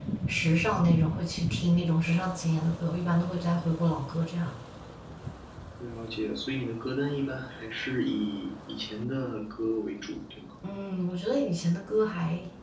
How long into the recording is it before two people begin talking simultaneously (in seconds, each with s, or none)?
none